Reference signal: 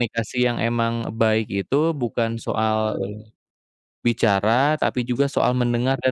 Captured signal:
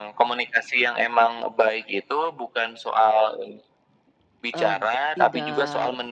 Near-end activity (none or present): present